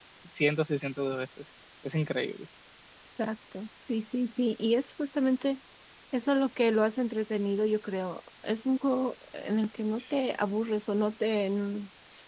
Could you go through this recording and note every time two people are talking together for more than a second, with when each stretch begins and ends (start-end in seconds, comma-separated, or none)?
none